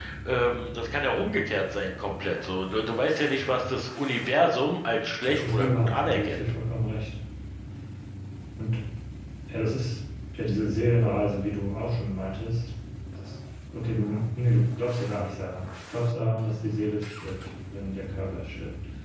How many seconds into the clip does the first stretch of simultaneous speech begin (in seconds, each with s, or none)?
5.2 s